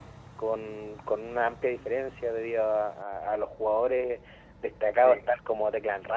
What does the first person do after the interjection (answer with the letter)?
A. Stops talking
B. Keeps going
B